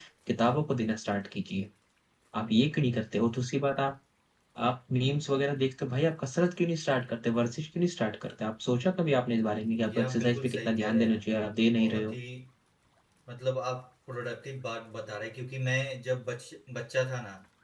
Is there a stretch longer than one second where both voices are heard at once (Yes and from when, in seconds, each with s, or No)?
Yes, from 9.8 s